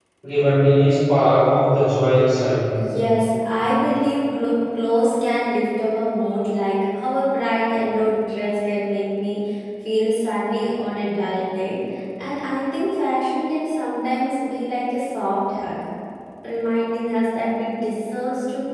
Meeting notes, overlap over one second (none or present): none